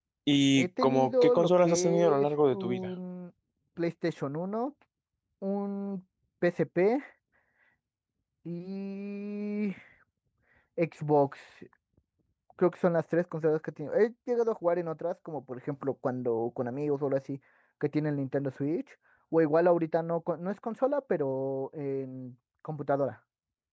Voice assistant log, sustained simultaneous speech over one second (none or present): present